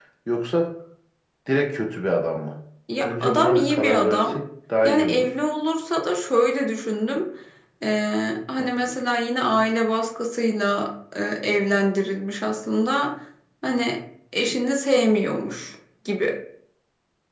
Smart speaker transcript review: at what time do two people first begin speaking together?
3.0 s

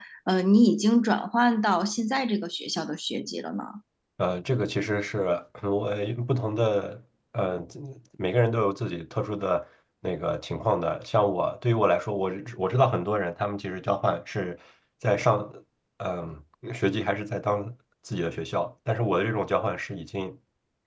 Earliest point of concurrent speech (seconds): none

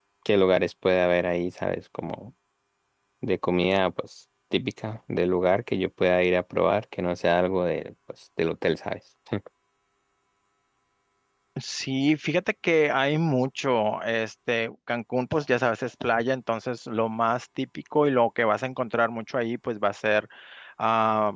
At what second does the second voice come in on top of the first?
none

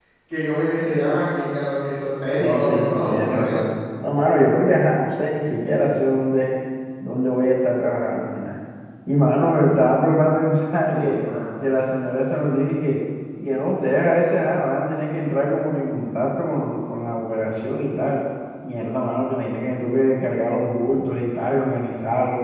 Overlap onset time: 2.4 s

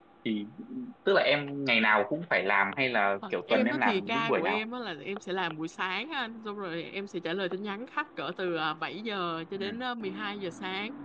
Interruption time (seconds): 3.3 s

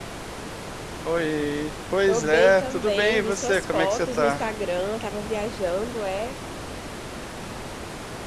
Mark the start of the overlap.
2.1 s

